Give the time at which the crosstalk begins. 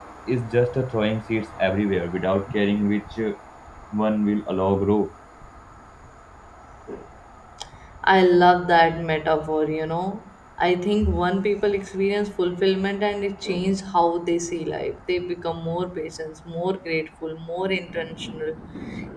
none

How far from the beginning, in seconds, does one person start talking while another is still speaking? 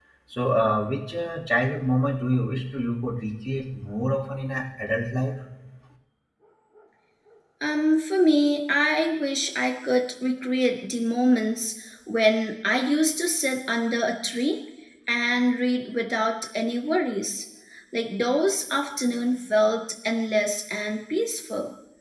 none

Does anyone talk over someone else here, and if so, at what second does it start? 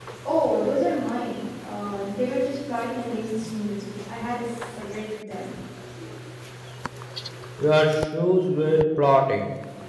none

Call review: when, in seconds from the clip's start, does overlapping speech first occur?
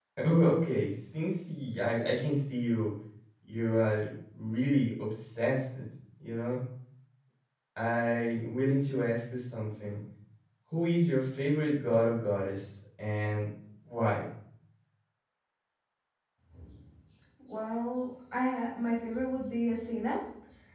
none

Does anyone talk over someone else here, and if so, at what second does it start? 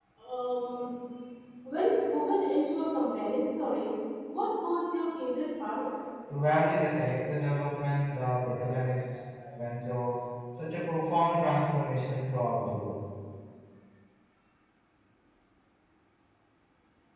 none

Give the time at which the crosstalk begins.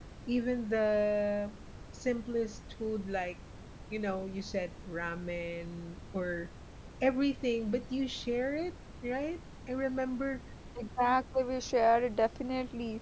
none

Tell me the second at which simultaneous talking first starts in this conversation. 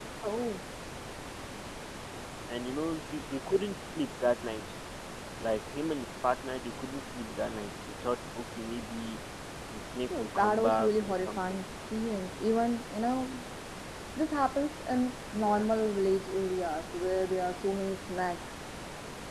10.2 s

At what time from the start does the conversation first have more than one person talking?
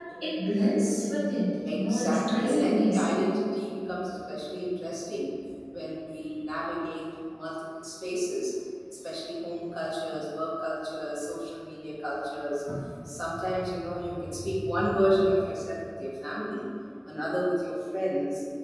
1.6 s

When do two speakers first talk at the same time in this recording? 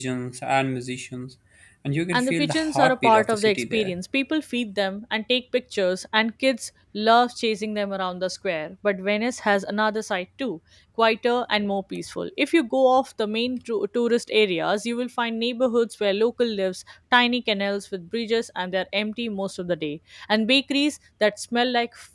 2.1 s

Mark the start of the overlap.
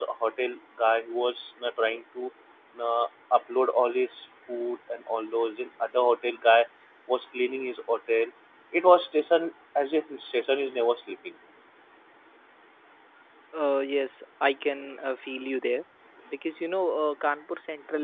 none

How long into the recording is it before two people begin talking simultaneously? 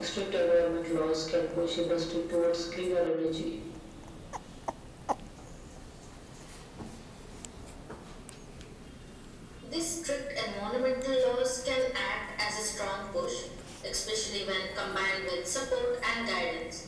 none

